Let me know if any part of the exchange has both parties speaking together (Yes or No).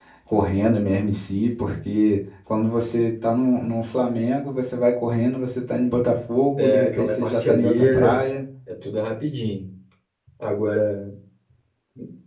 Yes